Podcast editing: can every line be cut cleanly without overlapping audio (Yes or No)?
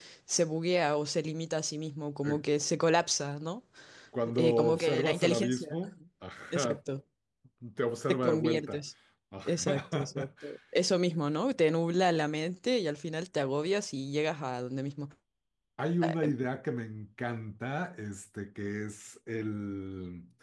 No